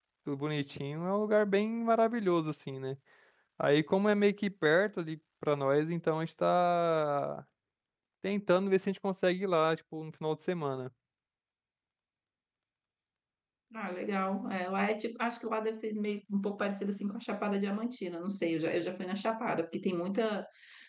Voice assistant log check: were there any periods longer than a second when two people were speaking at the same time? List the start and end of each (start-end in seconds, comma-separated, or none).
none